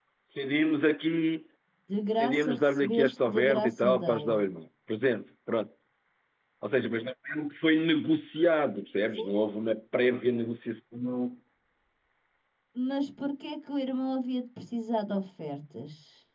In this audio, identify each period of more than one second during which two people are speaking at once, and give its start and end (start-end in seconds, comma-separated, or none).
2.1-4.4